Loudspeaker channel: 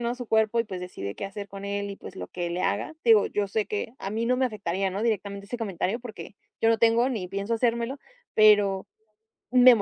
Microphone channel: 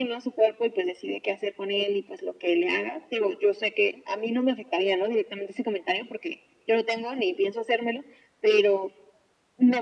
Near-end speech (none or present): none